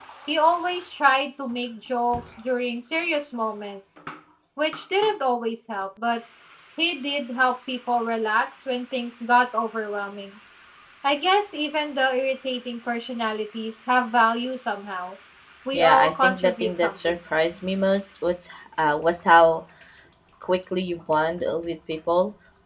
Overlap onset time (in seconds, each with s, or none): 15.7 s